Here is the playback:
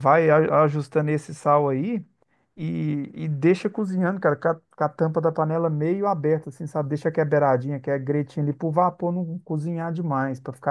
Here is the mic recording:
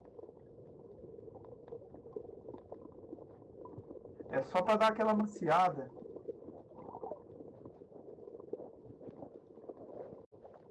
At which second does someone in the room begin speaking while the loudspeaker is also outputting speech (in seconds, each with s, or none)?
4.3 s